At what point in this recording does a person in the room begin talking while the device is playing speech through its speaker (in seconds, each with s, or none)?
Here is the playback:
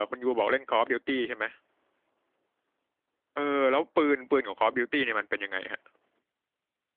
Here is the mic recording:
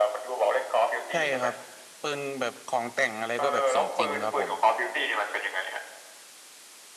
1.1 s